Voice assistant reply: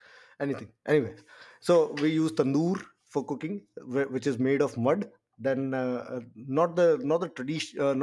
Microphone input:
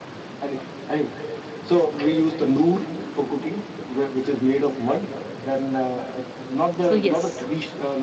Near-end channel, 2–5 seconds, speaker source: echo only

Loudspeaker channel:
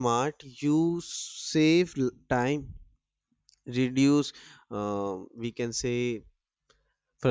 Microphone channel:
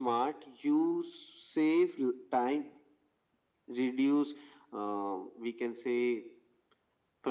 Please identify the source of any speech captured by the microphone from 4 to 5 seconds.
echo only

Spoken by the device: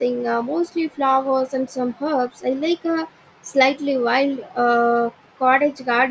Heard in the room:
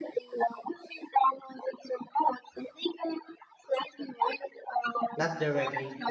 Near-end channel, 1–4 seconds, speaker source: echo only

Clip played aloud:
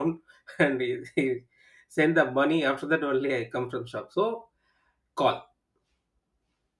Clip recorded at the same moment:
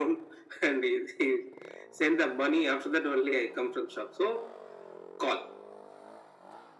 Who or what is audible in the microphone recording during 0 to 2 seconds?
echo only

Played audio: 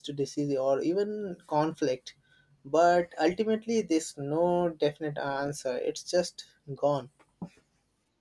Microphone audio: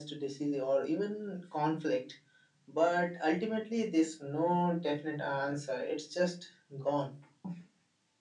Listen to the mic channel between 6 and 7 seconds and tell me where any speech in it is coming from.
echo only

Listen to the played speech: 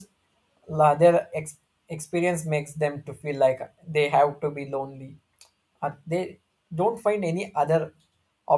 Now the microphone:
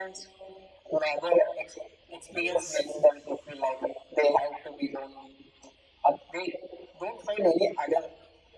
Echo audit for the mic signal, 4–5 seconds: echo only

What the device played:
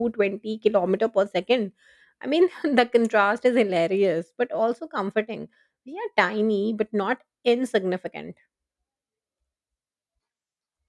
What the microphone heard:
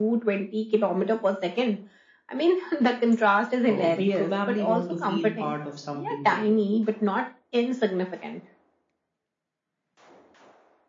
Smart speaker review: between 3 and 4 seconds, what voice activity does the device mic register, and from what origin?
both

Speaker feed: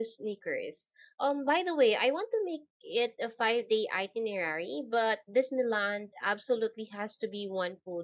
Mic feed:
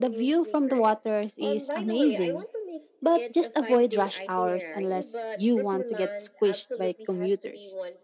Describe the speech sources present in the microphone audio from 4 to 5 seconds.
both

